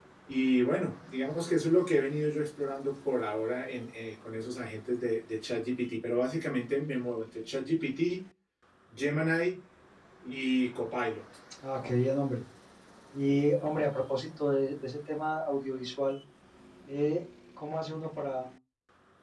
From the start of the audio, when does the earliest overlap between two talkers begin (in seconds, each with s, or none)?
none